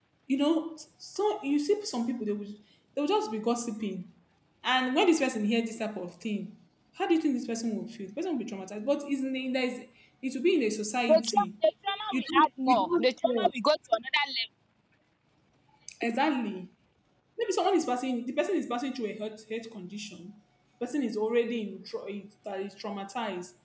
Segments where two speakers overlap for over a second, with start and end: 12.1-13.5

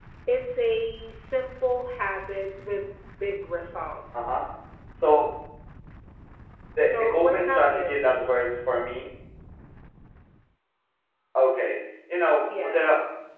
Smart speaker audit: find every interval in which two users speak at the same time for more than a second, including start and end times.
6.8-8.3

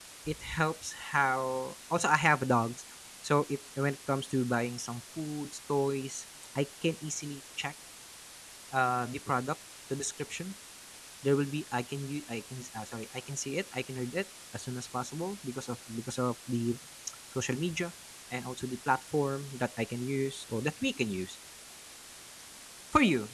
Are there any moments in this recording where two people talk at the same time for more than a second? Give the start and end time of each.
none

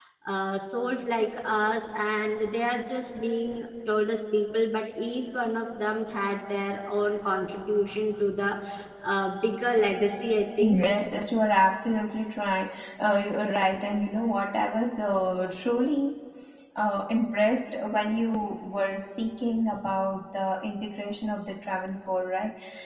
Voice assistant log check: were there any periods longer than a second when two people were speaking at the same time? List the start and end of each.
none

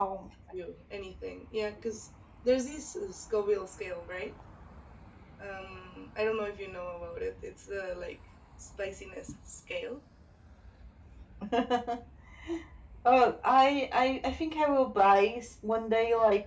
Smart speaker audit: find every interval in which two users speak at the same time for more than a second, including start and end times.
none

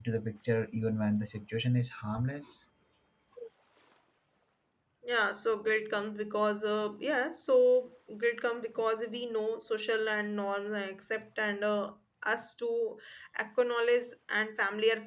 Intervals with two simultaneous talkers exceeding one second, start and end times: none

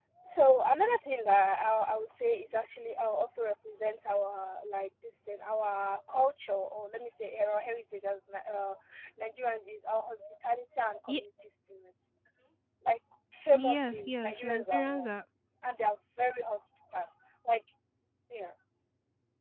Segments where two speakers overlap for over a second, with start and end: 13.6-15.1

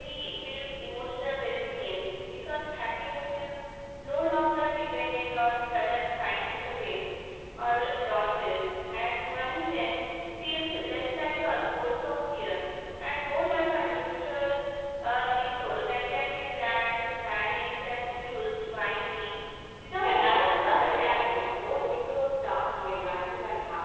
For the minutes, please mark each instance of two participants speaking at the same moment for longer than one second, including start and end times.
20.0-21.5

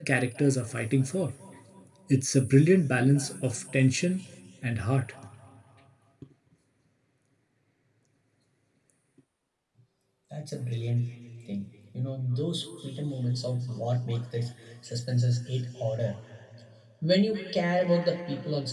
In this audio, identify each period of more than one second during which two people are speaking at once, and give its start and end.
none

